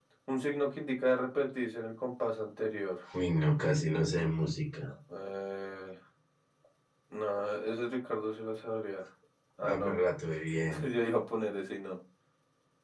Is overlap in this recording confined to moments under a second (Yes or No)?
Yes